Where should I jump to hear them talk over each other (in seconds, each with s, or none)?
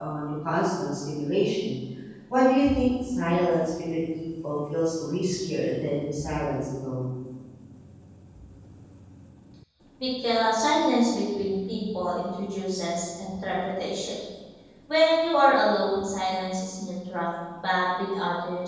none